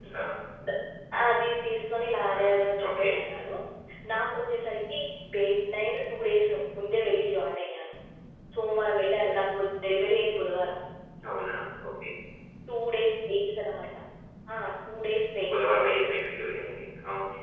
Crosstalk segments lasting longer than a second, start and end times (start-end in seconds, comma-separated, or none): none